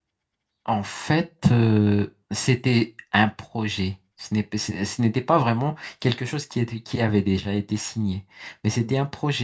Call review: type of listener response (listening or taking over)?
listening